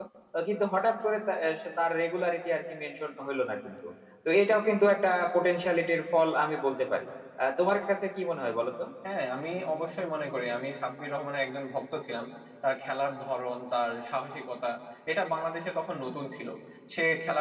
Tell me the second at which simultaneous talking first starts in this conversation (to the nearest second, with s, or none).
none